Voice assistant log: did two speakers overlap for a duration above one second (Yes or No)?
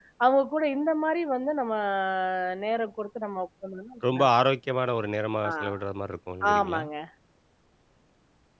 No